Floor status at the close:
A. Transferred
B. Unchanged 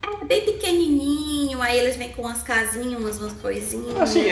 A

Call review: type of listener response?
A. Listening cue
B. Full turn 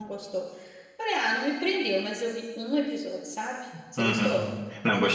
B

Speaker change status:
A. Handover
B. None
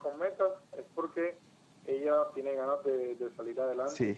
A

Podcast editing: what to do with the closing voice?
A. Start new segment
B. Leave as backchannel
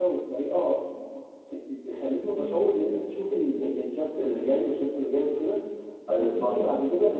B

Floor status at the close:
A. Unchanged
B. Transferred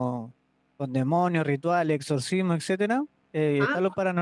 A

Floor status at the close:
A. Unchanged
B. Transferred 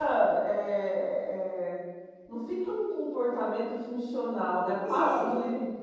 B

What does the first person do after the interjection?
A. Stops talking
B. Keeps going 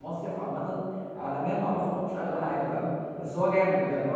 B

